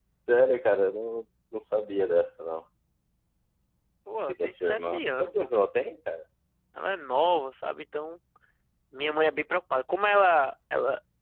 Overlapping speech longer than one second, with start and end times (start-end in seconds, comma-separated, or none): 4.3-5.5